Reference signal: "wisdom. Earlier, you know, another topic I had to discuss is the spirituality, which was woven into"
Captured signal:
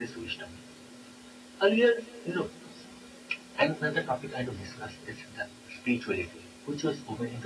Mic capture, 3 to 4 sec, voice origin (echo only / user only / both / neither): echo only